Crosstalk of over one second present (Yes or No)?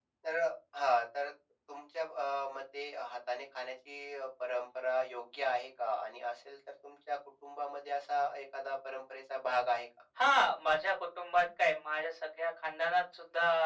No